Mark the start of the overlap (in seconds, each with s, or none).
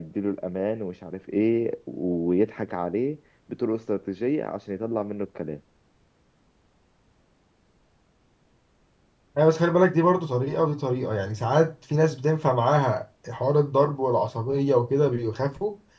none